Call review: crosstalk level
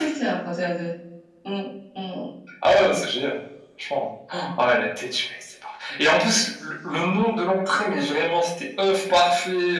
none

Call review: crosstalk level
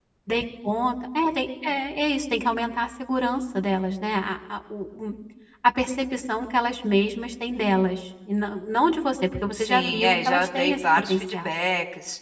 present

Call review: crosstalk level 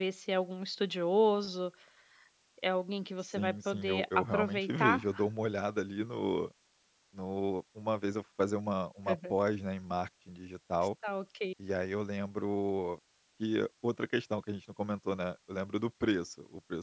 present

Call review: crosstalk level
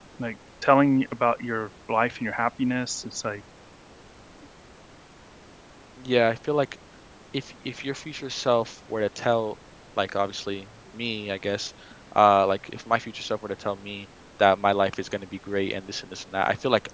none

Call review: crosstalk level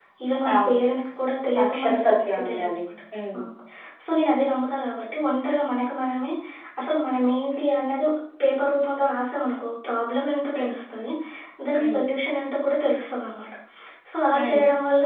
present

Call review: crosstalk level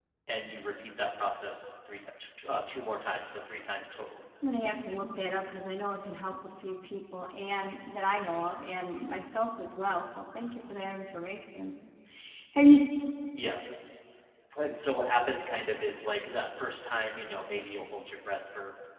none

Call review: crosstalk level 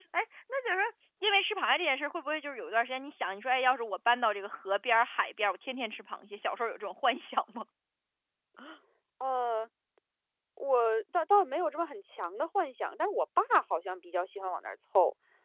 none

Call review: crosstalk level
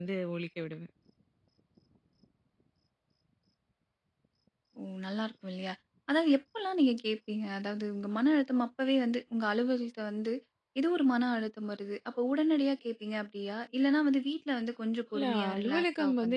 present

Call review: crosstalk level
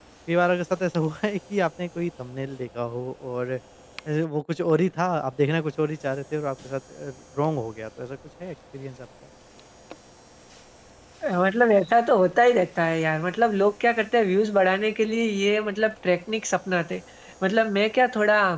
none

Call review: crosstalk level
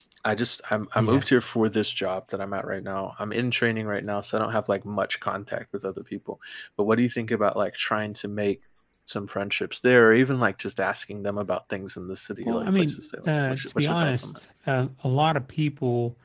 present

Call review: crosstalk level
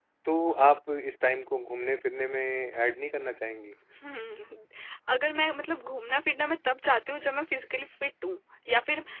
none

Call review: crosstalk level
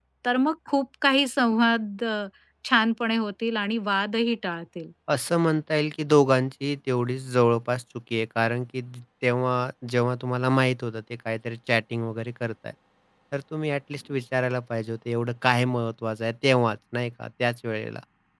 none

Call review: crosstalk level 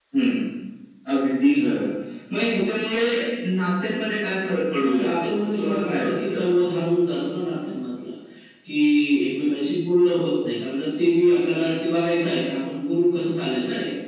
present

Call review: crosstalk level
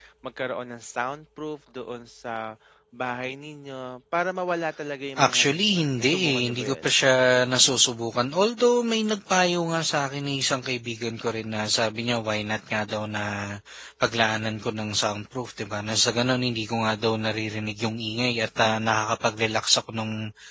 present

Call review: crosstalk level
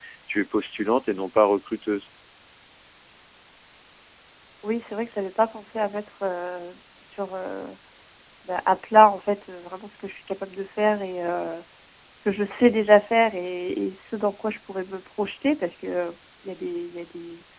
none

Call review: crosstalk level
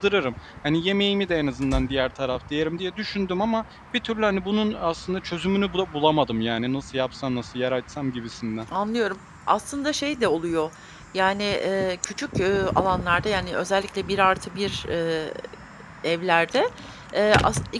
none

